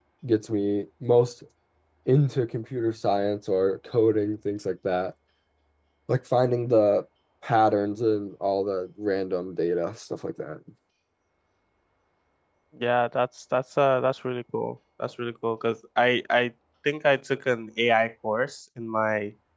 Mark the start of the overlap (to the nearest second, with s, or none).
none